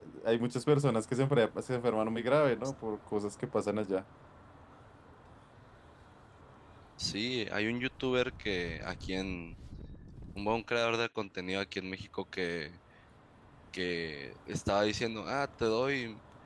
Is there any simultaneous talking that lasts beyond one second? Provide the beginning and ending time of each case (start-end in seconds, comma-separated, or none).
none